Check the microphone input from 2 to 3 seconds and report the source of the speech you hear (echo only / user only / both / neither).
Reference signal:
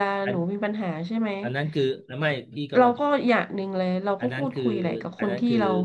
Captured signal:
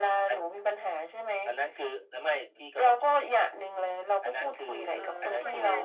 echo only